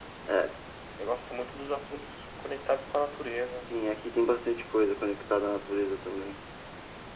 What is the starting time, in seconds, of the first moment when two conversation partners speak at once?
none

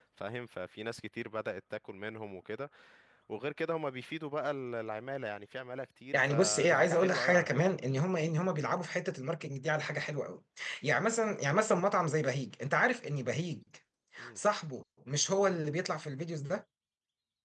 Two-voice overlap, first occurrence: 6 s

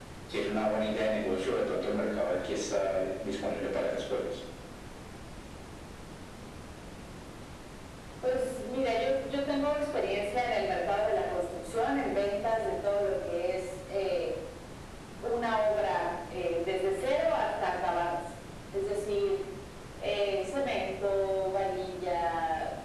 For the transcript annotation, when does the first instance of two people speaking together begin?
none

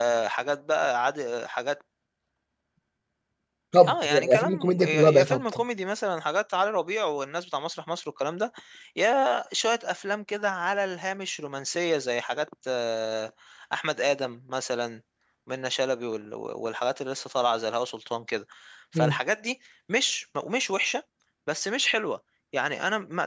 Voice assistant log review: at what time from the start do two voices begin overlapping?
4 s

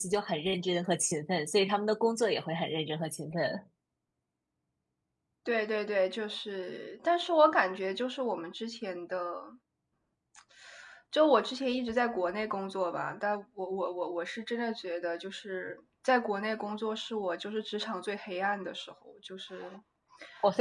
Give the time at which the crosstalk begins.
none

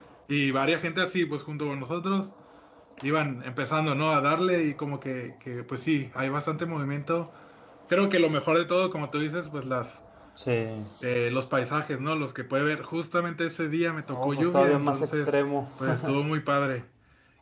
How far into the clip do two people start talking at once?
14 s

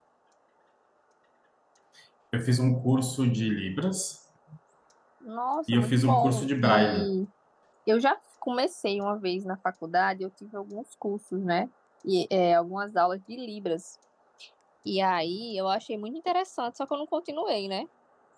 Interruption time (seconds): 6 s

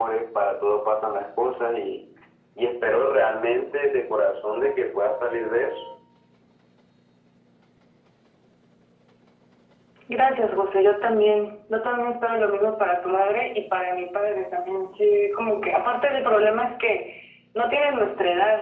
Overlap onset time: none

